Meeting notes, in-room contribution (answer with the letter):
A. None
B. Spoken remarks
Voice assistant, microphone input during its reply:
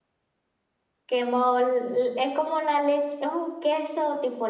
B